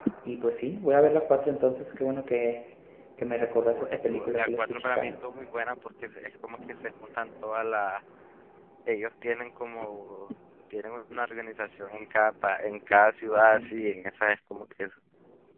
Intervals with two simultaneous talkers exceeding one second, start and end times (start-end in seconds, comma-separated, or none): 3.7-5.1